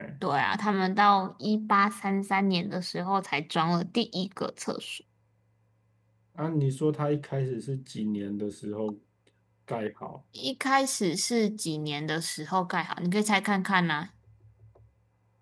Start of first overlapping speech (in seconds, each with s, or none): none